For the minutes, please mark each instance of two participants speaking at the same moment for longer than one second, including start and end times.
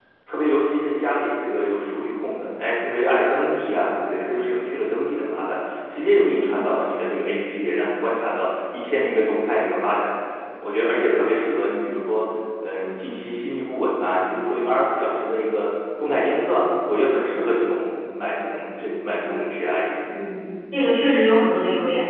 none

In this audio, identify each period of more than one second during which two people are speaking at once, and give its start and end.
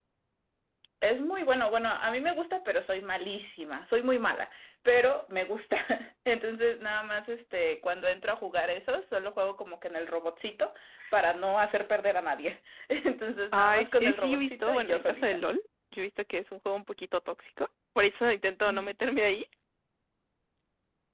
13.5-15.2

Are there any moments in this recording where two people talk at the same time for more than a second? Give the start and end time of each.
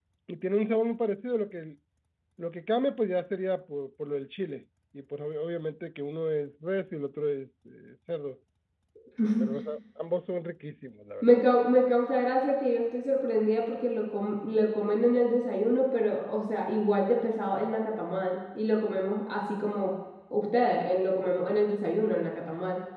none

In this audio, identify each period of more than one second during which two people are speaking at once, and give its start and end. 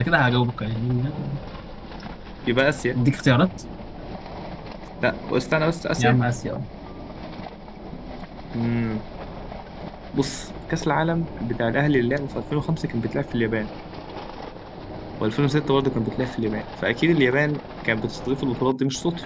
none

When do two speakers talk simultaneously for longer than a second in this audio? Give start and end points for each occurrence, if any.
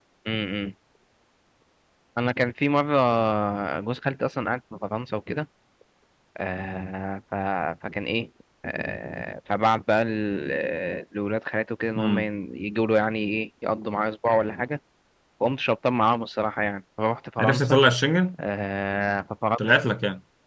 none

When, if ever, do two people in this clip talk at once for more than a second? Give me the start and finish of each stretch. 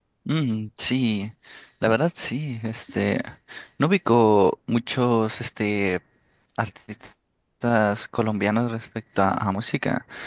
none

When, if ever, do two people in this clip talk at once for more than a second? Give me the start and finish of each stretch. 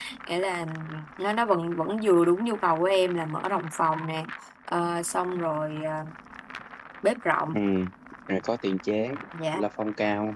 none

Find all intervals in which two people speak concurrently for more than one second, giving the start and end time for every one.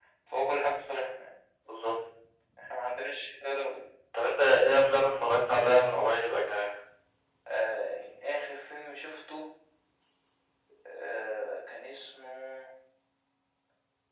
none

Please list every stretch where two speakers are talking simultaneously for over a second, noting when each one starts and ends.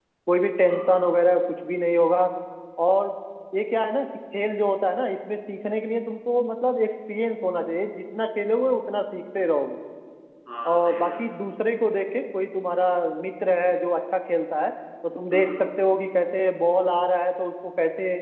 none

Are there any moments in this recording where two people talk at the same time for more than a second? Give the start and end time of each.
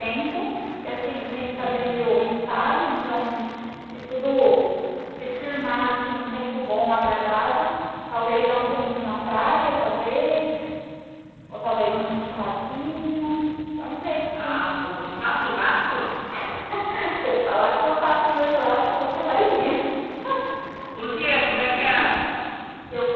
none

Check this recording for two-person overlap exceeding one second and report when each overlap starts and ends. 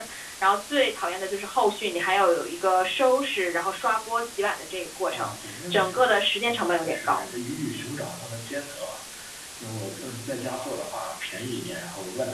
5.1-7.2

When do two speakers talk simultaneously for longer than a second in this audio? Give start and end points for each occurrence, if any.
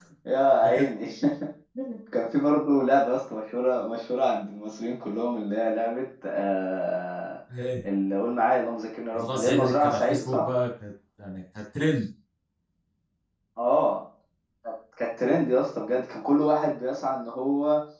9.1-10.4

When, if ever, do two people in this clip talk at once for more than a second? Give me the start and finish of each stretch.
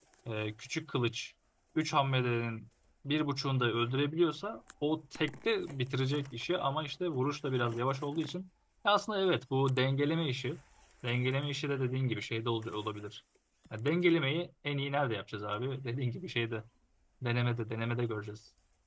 none

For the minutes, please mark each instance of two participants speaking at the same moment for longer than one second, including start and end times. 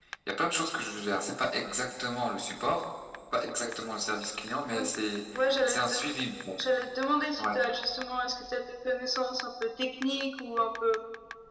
none

